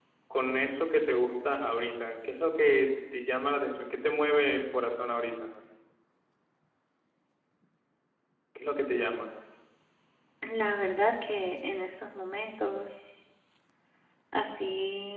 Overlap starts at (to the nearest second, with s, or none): none